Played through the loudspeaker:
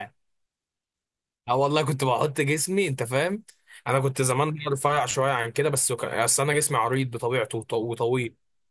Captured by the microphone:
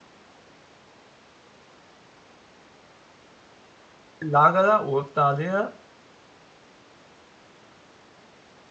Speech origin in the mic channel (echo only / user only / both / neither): user only